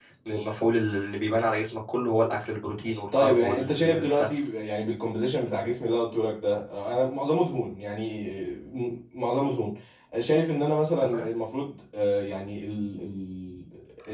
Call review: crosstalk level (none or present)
present